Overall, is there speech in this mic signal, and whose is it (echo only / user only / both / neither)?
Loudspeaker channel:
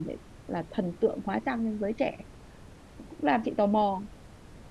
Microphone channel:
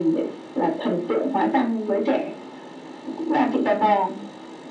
echo only